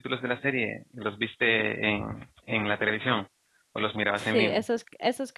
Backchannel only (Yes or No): No